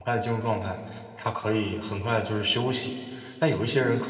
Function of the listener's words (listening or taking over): listening